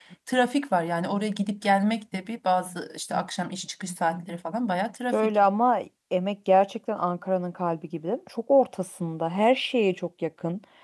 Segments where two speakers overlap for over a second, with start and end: none

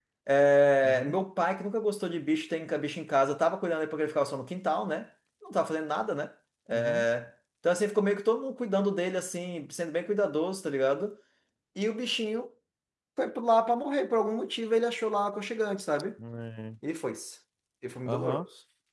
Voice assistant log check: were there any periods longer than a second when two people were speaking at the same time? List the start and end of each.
none

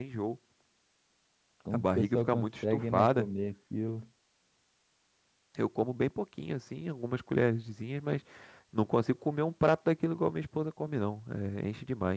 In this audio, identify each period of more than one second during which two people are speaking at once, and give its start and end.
1.7-3.3

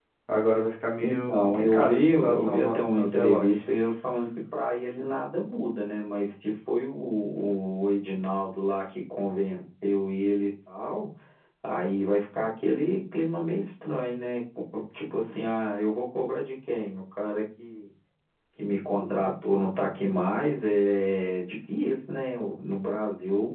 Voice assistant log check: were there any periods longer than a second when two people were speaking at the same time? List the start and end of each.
1.0-3.6

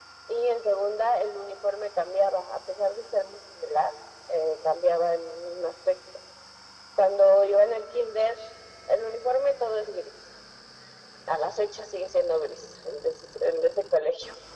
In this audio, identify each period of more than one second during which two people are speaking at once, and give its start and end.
none

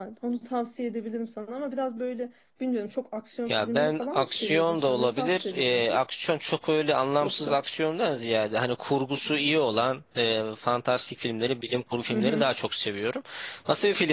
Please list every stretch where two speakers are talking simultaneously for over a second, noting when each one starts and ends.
3.5-6.0

